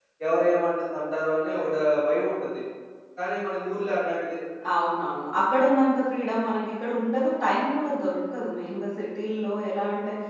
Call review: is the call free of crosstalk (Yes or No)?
Yes